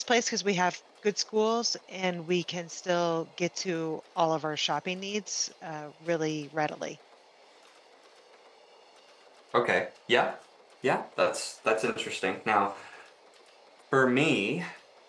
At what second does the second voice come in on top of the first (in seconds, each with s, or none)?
none